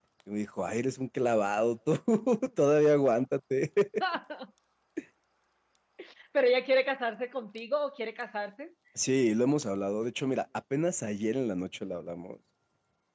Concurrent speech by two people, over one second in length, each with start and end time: none

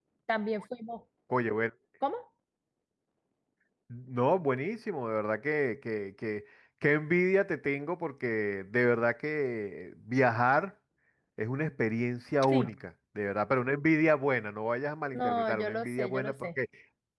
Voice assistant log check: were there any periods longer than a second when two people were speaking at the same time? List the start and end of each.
15.1-16.5

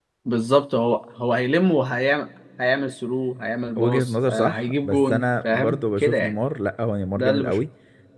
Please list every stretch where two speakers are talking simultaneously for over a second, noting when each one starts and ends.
3.8-6.3

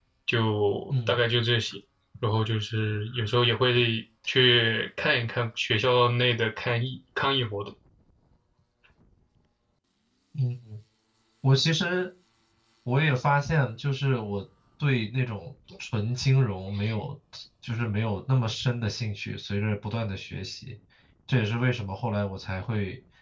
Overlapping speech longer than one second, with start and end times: none

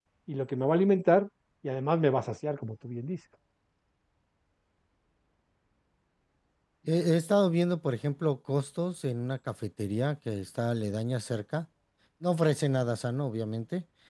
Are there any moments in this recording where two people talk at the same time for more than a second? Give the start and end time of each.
none

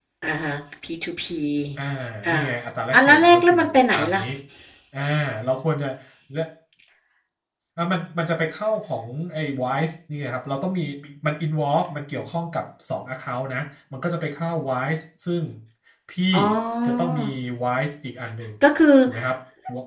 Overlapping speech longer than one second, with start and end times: 2.9-4.2

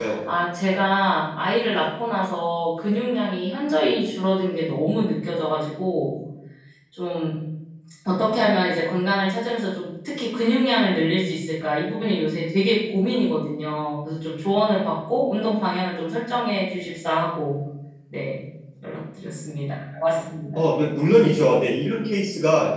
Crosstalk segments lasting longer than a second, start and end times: none

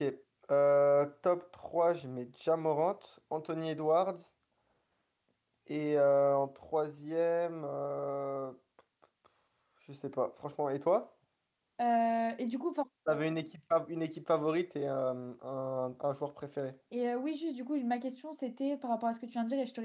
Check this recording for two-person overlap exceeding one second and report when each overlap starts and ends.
none

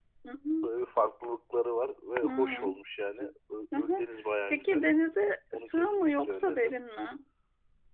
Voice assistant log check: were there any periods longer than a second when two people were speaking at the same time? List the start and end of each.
5.5-6.7

